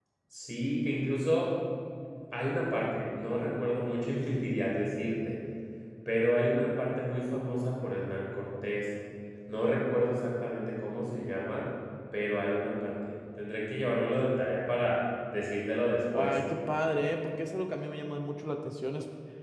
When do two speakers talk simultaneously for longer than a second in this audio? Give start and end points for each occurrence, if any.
none

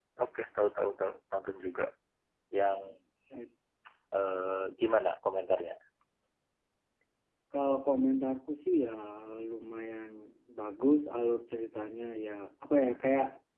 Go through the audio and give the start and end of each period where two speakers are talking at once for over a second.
none

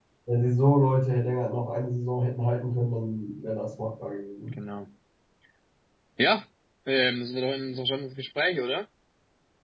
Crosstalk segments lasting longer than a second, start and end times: none

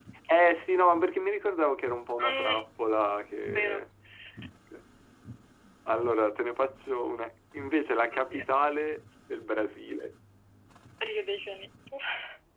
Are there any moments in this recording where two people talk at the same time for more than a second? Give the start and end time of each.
none

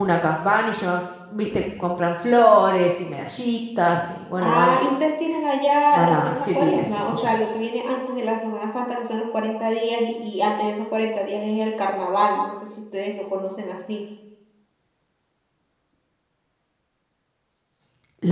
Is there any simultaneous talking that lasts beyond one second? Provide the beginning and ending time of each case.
5.9-7.4

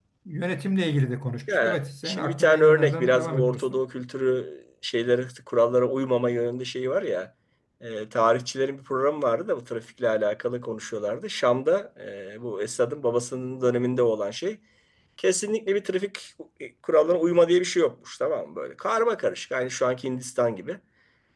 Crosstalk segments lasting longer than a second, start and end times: 1.5-3.8

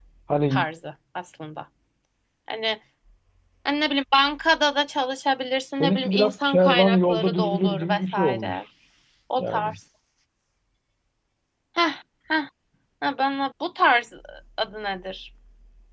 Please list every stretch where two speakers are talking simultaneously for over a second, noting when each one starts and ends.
5.7-8.6

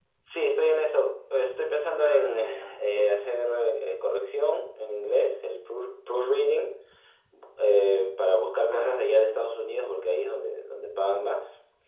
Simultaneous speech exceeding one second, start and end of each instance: 2.0-3.2

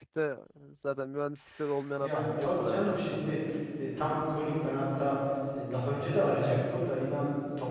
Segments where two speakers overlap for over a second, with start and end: 2.0-3.3

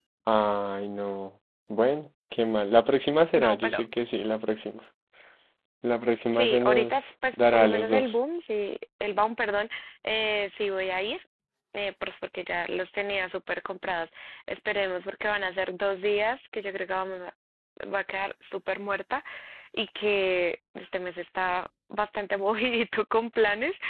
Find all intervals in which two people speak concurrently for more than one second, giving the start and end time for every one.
6.3-8.2

